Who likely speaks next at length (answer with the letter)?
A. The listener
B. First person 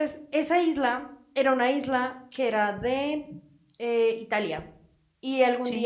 B